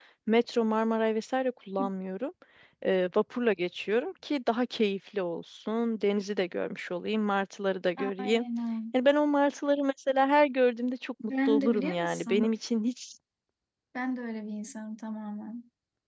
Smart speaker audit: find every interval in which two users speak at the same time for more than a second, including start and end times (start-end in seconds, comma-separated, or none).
11.2-12.5